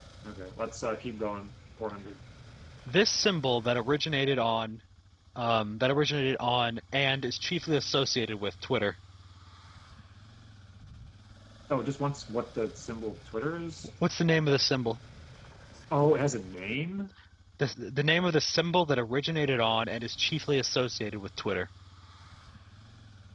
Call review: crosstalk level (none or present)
none